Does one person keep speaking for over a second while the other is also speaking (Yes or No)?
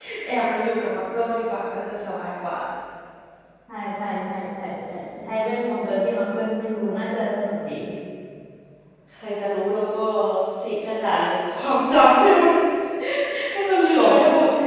No